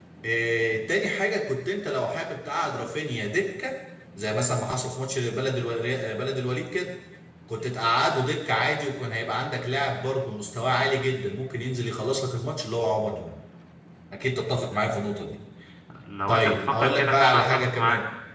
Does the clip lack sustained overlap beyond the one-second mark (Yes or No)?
No